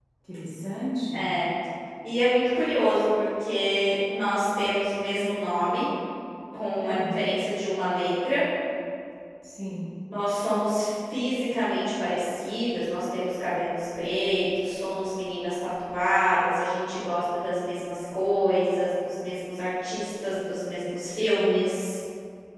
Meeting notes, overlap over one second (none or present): none